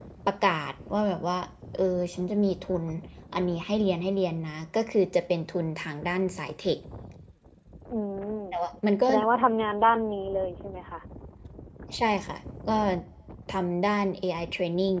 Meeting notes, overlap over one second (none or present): none